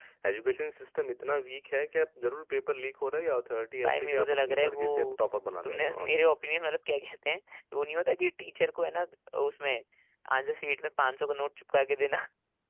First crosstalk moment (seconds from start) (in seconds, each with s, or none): 3.8 s